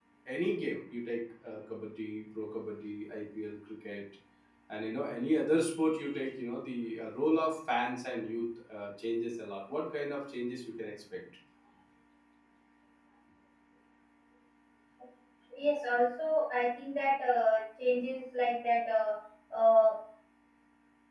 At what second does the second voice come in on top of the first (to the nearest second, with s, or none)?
none